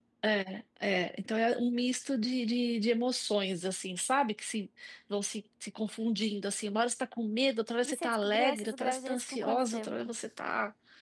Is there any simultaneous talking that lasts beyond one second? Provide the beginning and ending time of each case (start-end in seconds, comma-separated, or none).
7.8-10.1